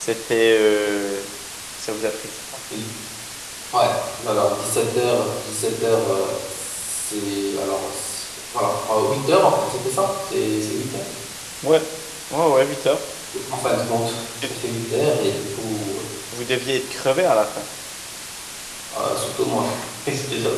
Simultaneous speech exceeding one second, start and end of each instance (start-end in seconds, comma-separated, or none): none